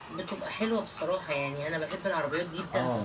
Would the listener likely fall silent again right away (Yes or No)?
Yes